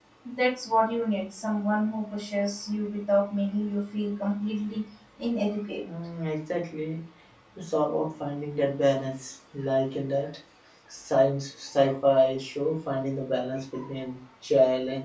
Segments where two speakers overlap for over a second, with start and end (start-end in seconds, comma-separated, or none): none